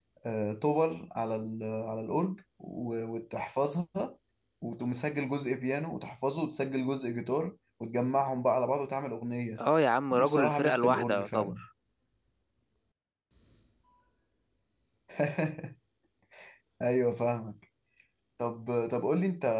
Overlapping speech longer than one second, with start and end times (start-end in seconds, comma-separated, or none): 10.1-11.5